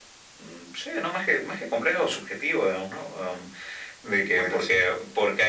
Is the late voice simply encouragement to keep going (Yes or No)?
Yes